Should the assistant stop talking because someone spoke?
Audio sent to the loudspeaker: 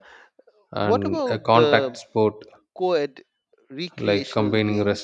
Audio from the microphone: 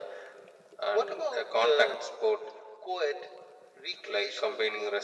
No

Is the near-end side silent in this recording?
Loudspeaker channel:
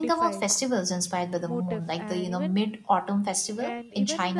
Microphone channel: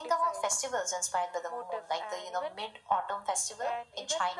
Yes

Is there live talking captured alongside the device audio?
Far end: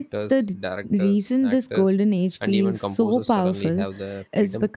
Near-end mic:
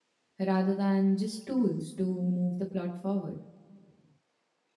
Yes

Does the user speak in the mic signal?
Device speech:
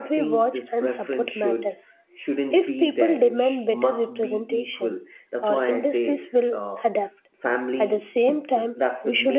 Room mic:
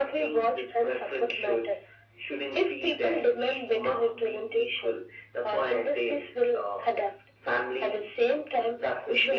No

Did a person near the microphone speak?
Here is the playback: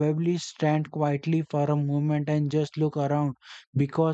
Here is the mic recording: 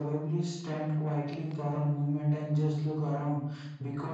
No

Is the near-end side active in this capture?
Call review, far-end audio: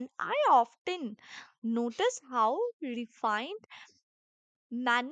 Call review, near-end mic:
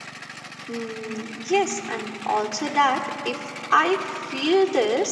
Yes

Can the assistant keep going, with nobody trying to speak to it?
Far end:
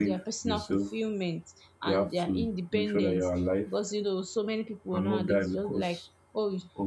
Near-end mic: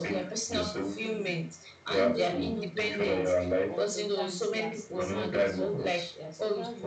No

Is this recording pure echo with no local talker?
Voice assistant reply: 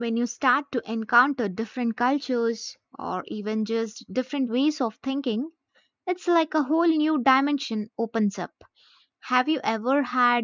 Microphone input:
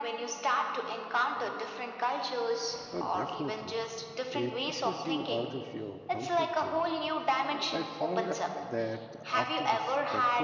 No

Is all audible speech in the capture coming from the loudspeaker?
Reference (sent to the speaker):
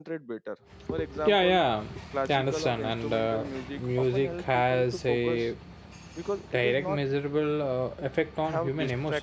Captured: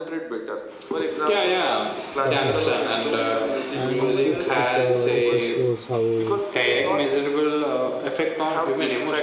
No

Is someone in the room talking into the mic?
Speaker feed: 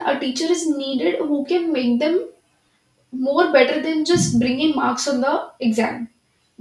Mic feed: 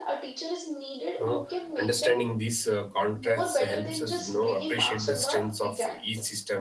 Yes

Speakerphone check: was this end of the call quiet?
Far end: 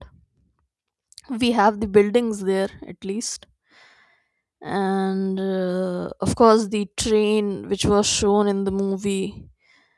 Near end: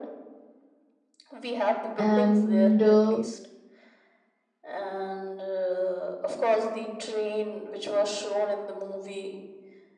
No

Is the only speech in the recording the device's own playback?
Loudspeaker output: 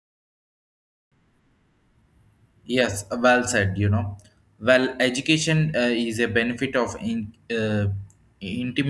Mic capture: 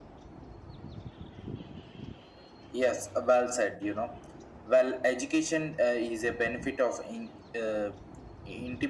Yes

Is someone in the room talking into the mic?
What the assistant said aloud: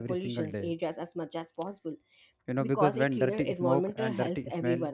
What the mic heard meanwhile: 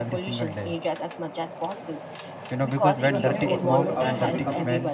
Yes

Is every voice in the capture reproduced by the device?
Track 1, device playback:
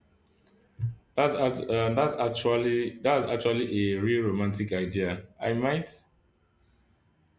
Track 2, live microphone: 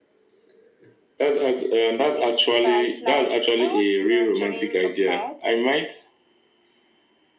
No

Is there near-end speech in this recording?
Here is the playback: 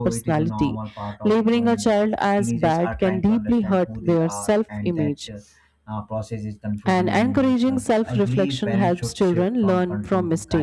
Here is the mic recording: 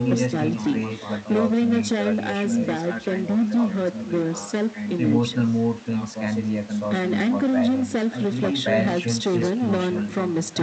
Yes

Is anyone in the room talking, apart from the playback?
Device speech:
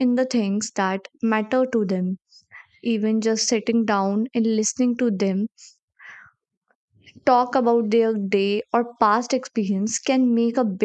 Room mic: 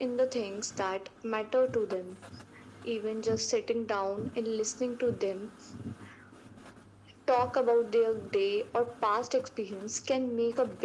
No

